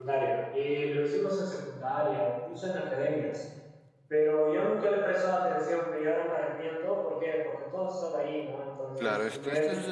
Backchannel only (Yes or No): No